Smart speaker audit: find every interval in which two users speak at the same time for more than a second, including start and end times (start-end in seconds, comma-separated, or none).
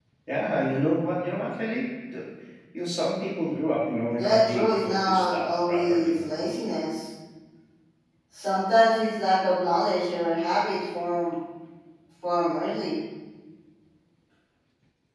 4.1-6.2